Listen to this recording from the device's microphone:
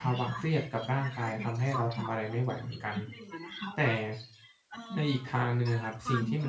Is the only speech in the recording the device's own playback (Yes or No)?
No